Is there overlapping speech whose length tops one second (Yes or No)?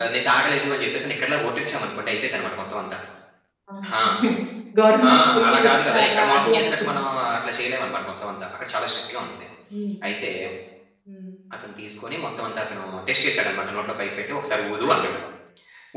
Yes